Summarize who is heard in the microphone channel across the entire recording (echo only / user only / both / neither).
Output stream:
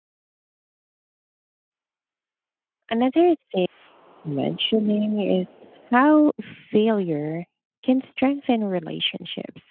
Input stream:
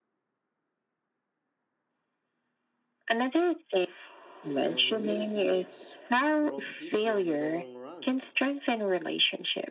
both